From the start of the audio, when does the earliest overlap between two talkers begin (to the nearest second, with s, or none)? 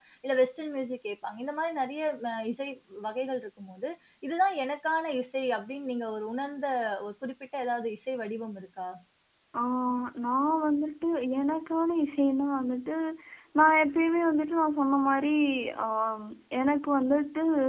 none